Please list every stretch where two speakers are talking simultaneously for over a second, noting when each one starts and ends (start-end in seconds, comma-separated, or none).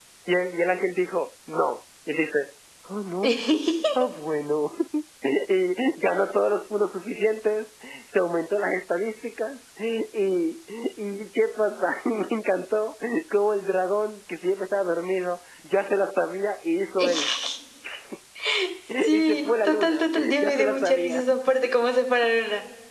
19.1-21.2